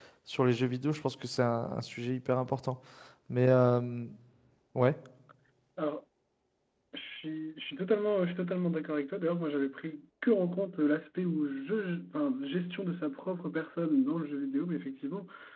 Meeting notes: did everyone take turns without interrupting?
Yes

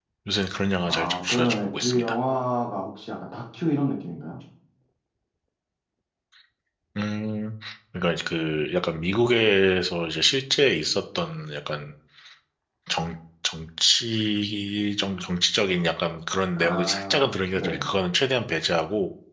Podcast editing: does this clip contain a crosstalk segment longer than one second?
Yes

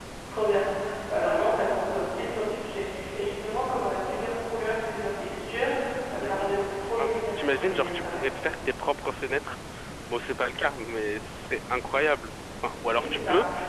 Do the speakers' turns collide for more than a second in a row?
Yes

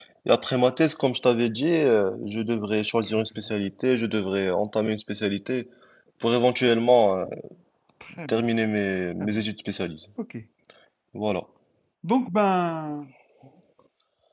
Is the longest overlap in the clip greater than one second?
No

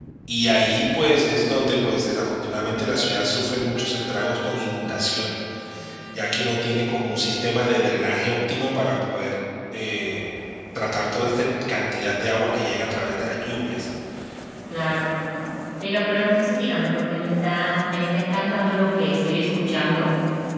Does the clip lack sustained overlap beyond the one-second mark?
Yes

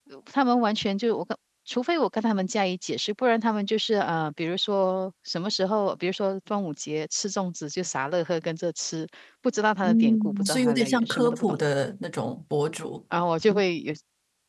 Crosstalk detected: Yes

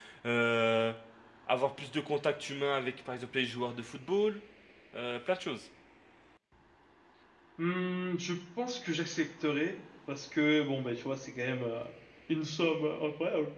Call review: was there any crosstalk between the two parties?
No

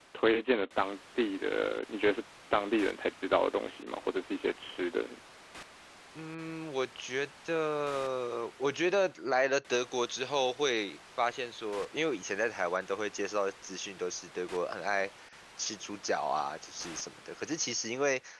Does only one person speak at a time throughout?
Yes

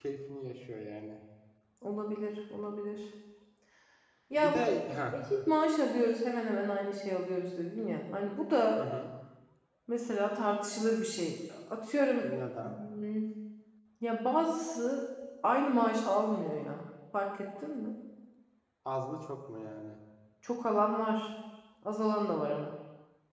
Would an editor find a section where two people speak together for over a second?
No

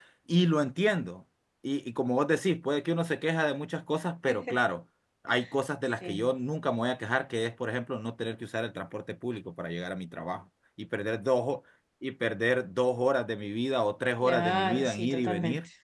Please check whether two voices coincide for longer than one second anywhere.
Yes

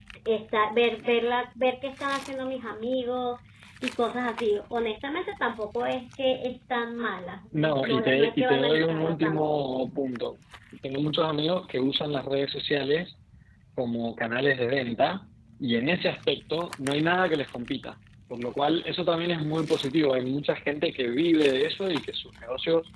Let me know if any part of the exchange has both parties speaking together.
Yes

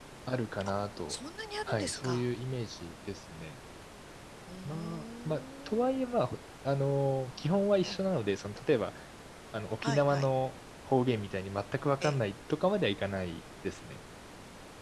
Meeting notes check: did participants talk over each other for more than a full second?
Yes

